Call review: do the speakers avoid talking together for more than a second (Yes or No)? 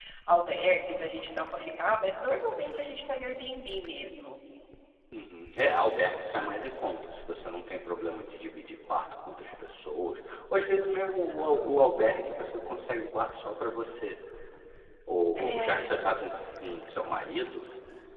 Yes